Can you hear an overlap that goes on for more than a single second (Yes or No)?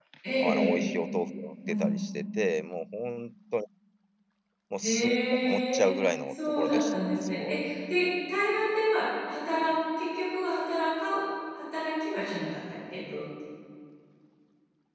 Yes